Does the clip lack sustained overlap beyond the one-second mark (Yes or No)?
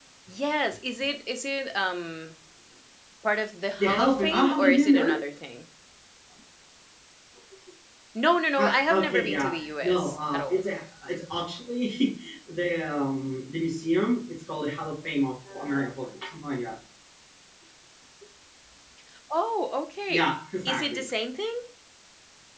No